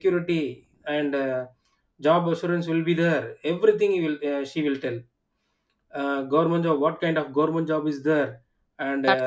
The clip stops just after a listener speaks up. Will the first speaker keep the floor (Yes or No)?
Yes